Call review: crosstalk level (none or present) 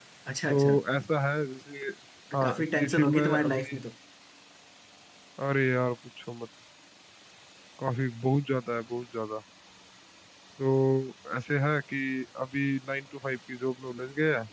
present